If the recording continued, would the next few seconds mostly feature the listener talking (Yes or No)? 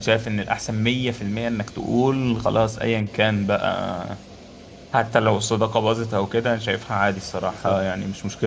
No